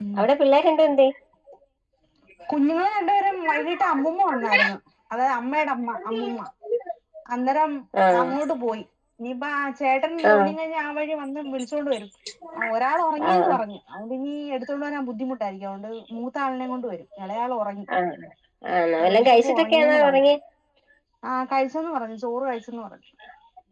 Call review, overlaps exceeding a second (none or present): present